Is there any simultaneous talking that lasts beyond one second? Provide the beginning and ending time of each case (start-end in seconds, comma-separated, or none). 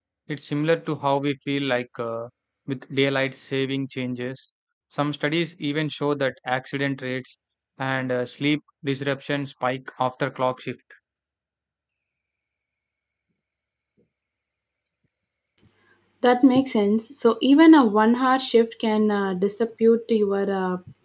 none